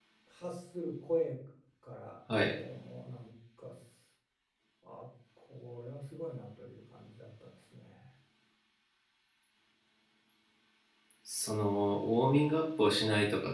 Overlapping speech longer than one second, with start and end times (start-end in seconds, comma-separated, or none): none